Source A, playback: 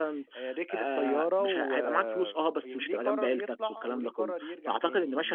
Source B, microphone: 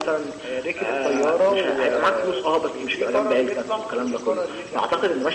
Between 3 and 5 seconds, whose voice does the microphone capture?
echo only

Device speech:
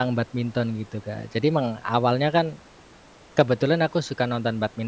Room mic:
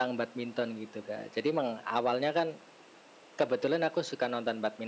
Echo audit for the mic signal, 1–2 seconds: echo only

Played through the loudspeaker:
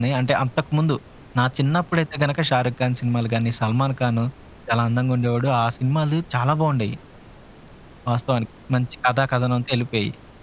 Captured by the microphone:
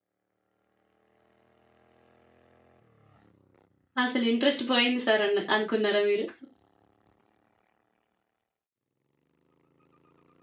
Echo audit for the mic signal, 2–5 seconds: user only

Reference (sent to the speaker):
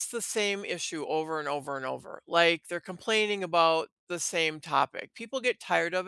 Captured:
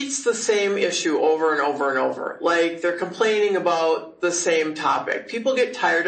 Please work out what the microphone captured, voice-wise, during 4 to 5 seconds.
echo only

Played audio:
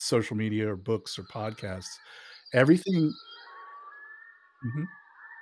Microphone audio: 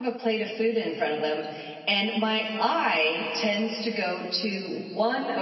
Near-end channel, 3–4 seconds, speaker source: user only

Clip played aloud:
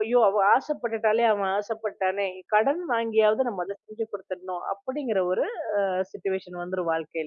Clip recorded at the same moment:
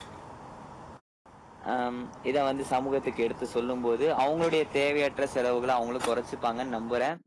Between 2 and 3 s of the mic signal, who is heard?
user only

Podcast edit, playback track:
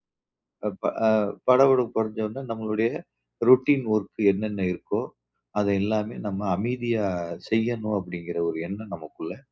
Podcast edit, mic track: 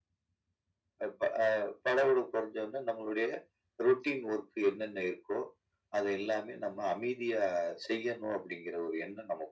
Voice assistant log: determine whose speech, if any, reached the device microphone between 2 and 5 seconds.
echo only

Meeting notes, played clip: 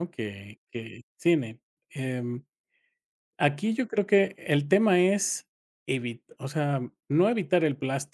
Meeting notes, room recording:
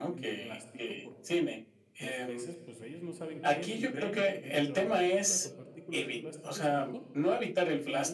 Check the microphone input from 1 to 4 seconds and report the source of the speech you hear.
both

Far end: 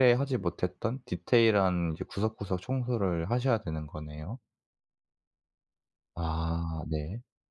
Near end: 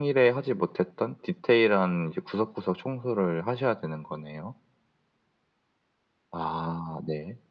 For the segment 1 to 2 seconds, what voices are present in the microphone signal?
echo only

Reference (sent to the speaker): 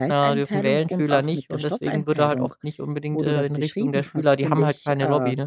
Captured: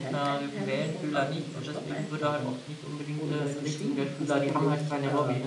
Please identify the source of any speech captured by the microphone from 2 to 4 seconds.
echo only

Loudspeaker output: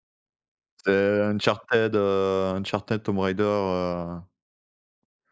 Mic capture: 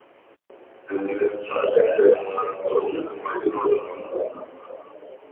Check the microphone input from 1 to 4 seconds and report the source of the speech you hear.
echo only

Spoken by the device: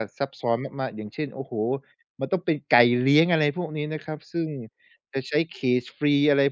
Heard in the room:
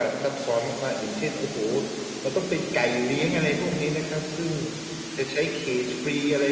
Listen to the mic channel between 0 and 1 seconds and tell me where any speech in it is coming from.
echo only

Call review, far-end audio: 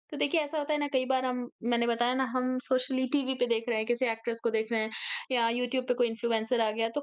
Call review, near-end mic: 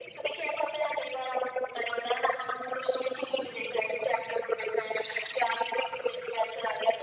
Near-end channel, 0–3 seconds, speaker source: echo only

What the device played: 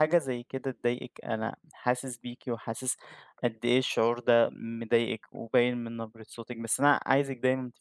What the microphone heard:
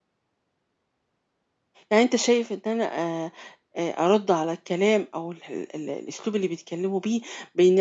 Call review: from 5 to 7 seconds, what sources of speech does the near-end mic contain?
user only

